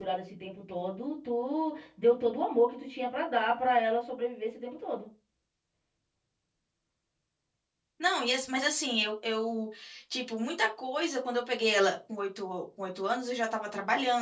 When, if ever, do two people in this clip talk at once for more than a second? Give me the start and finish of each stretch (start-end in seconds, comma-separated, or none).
none